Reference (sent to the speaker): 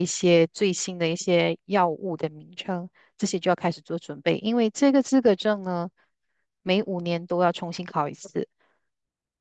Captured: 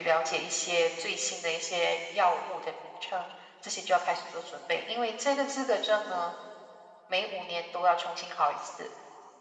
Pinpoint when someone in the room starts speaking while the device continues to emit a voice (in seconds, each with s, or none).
none